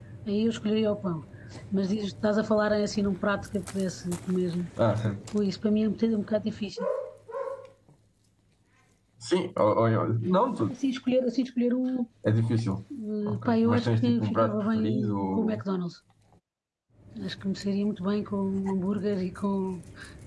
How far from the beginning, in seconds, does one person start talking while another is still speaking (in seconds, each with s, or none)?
13.3 s